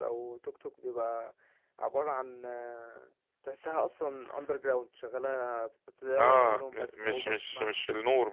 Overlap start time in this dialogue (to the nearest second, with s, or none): 6 s